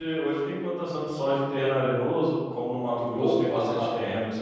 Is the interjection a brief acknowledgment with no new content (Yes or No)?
No